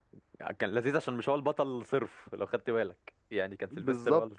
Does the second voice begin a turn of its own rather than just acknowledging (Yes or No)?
Yes